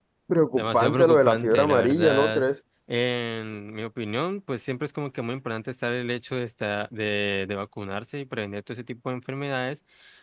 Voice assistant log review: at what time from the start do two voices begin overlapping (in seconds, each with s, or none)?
0.6 s